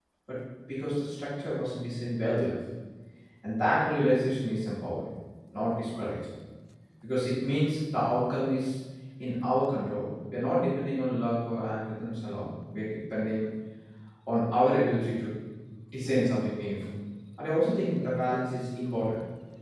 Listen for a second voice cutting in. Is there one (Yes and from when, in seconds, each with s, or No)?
No